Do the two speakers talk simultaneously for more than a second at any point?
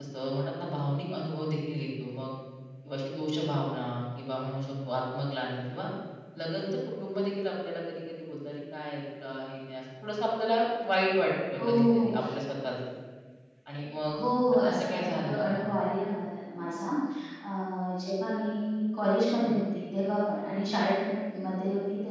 Yes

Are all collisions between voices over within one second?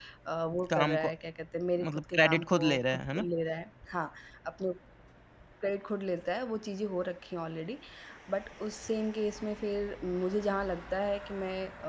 No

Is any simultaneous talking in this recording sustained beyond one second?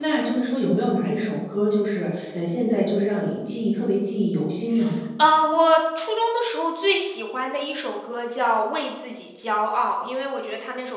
No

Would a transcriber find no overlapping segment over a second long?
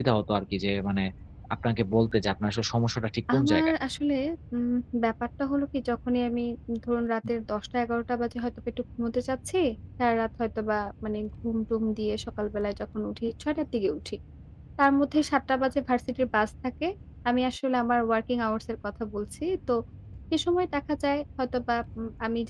Yes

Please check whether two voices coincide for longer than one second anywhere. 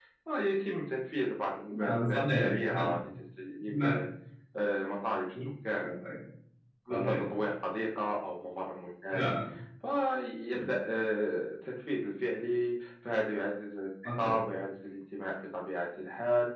Yes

